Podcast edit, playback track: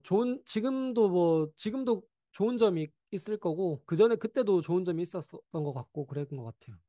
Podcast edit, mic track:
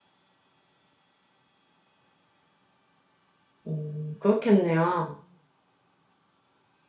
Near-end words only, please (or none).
음, 그렇겠네요.